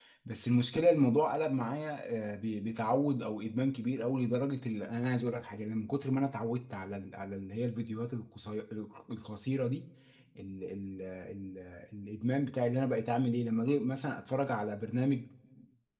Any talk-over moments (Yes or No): No